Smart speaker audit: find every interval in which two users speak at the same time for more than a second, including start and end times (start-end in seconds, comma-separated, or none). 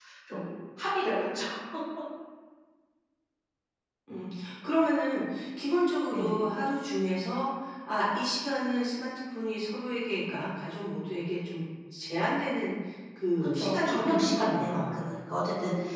13.6-15.1